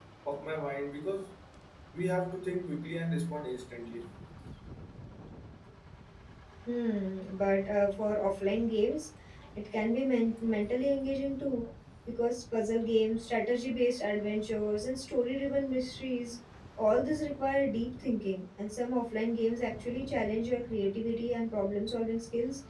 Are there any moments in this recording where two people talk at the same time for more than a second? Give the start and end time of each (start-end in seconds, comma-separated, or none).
none